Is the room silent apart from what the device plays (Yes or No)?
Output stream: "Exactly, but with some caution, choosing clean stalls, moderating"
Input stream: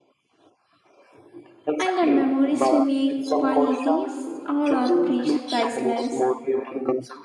No